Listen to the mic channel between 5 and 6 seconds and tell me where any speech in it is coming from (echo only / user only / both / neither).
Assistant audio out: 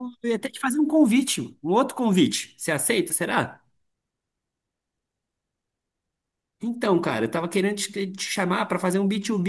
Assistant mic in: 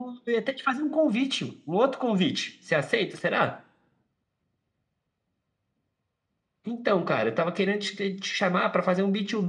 neither